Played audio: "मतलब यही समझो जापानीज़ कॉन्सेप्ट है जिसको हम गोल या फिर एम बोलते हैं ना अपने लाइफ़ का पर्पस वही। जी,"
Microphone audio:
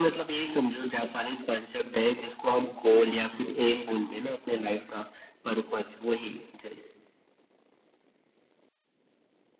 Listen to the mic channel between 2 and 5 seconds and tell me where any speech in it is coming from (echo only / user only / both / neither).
echo only